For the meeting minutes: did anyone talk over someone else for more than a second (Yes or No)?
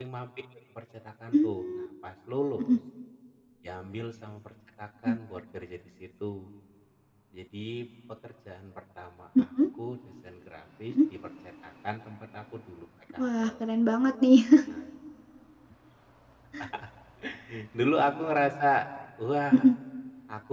No